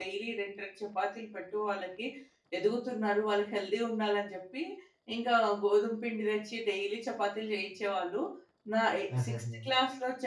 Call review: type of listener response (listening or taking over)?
listening